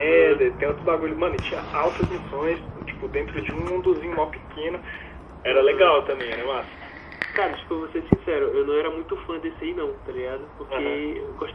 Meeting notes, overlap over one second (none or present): none